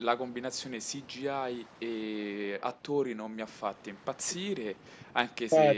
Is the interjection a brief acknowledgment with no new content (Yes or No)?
Yes